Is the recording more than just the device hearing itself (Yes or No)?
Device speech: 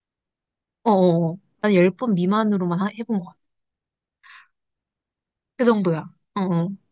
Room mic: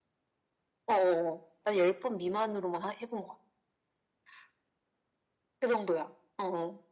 No